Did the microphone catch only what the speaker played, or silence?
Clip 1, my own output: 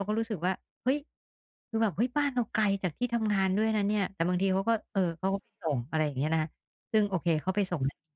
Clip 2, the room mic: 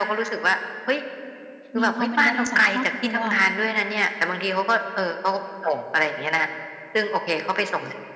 No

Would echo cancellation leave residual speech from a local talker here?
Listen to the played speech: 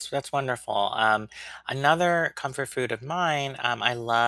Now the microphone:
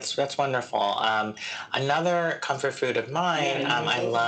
Yes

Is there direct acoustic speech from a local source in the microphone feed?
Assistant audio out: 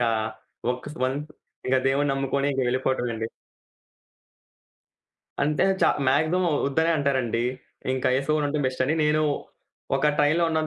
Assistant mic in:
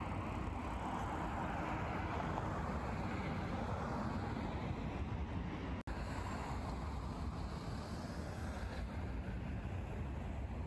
No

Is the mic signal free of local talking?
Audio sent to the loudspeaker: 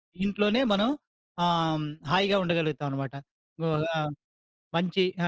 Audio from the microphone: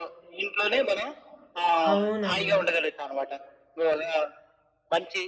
No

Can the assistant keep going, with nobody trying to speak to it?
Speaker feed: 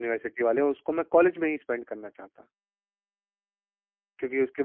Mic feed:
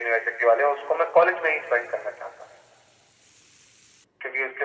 Yes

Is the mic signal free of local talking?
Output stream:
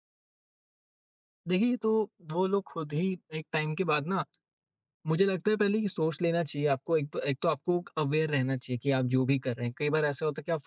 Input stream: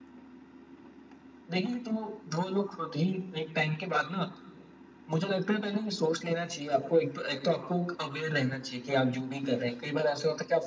Yes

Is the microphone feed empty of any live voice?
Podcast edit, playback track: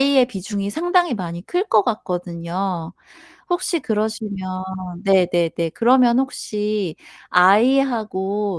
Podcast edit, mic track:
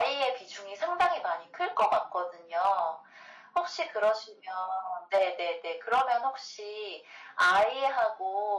Yes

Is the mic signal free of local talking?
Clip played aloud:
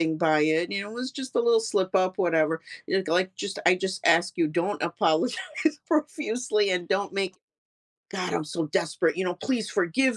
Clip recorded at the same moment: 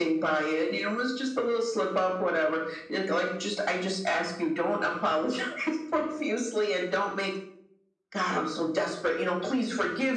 Yes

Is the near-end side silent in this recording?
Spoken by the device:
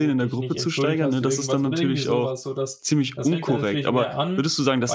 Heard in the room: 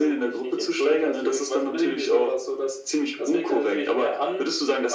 Yes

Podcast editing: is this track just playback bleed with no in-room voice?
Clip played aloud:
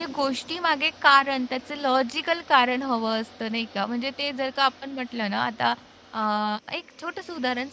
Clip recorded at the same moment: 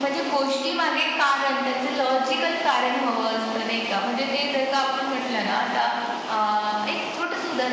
Yes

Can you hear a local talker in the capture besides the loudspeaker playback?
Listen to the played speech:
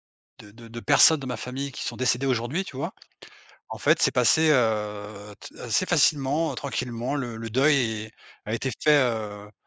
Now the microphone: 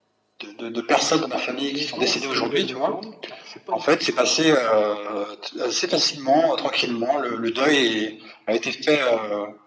Yes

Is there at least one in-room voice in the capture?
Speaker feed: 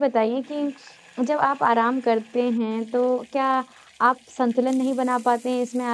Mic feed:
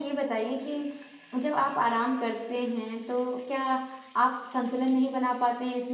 No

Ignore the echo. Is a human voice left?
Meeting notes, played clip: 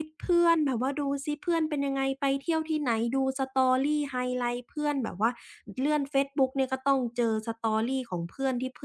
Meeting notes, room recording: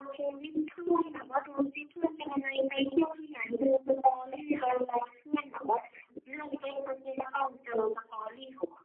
No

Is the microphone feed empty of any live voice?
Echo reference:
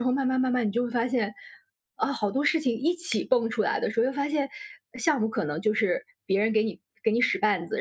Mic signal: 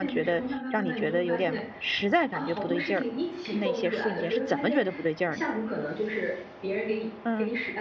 No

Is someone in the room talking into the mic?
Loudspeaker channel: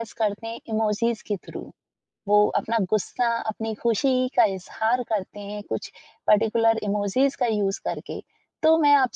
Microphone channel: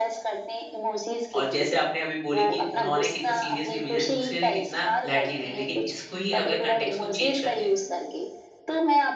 Yes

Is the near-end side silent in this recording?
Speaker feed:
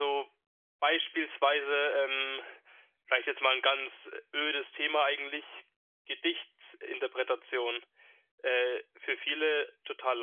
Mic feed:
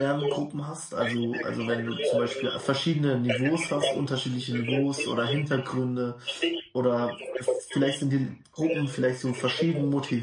No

